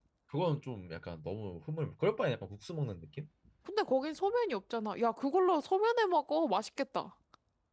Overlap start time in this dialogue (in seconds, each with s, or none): none